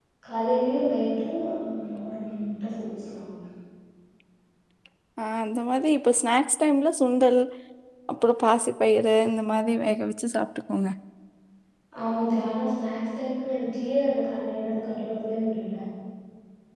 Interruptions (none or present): none